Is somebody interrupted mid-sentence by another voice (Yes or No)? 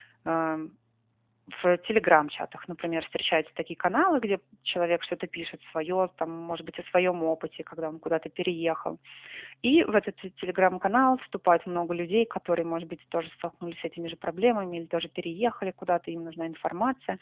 No